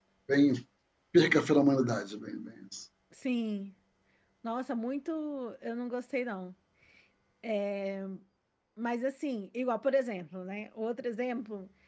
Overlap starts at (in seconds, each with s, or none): none